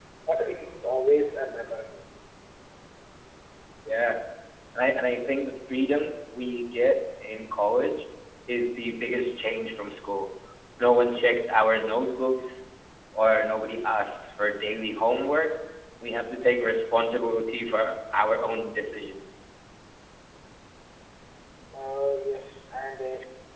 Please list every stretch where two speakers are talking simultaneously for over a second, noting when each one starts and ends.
none

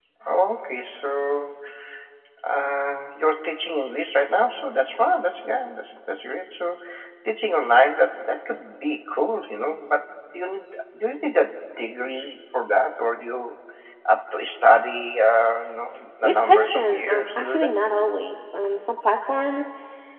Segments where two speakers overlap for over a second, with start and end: 16.2-17.7

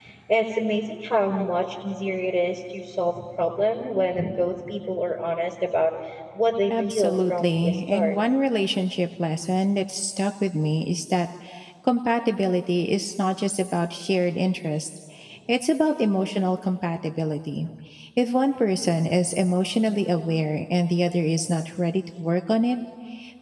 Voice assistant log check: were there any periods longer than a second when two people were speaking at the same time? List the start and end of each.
6.7-8.1

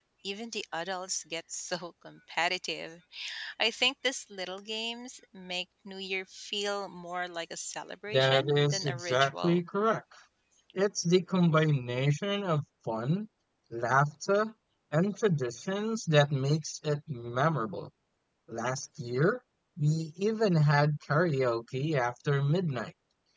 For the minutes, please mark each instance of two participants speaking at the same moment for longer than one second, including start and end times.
8.1-9.6

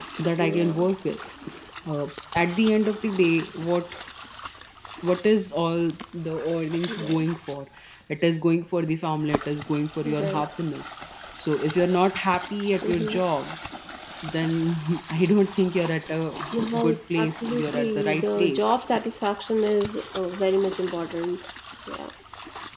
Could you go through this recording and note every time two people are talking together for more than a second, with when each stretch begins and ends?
16.8-18.7

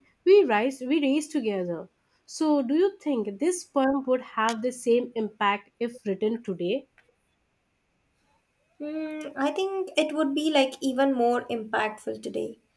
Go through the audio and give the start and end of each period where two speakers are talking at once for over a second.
none

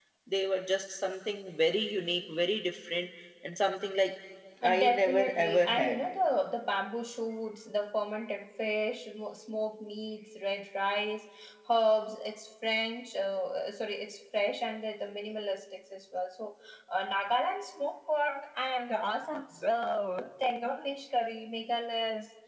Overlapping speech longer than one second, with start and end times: 4.6-6.0

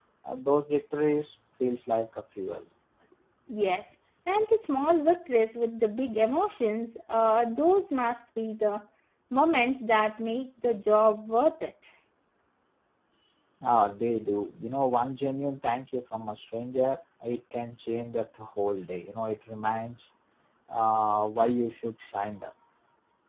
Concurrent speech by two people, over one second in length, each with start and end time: none

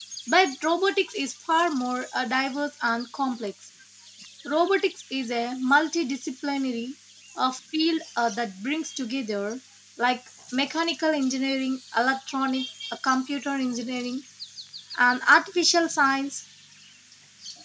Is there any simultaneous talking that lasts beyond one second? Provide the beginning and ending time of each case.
none

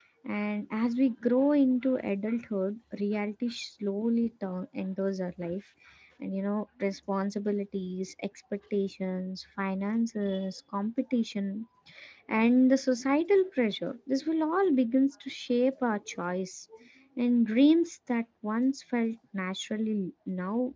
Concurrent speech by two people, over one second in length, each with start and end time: none

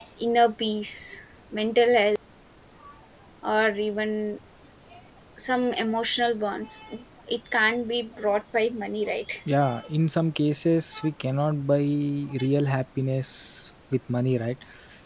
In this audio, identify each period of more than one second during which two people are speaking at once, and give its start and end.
none

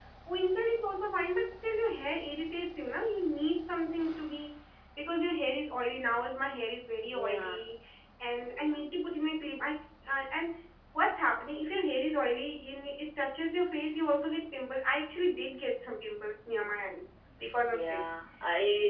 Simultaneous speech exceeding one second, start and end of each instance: none

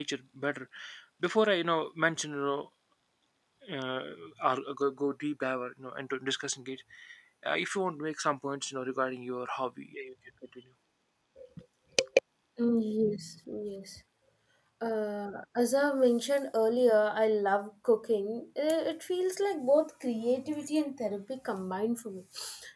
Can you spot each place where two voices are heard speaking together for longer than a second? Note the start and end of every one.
none

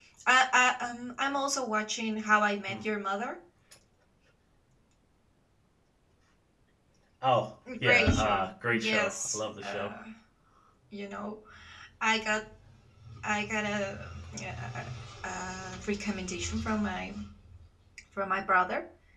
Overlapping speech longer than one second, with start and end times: 7.8-9.9

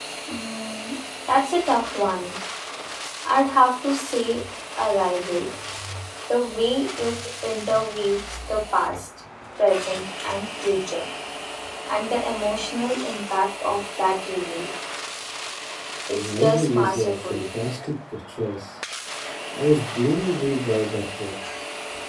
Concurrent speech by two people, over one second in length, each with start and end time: 16.1-17.4

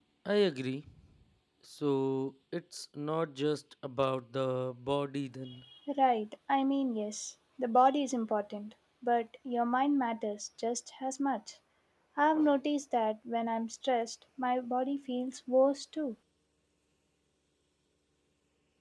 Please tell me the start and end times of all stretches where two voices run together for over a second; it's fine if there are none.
none

